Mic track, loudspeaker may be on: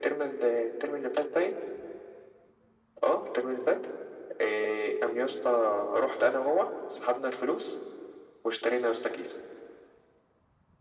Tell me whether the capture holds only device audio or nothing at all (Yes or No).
Yes